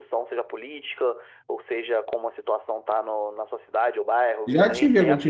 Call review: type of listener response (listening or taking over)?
taking over